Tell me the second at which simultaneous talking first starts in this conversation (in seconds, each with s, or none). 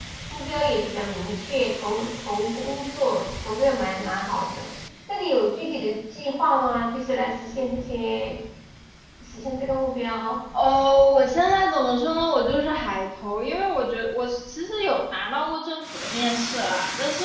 none